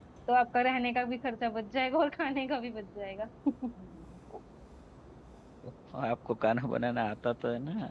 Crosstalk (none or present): none